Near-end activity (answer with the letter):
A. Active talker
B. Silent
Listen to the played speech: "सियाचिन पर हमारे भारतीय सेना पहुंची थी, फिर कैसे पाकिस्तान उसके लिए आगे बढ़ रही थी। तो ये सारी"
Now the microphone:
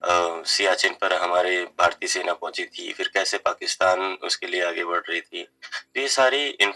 B